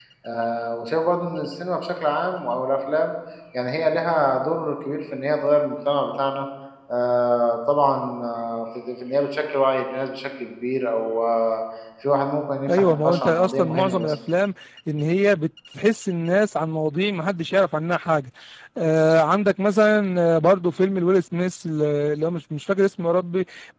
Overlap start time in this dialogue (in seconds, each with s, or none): 12.7 s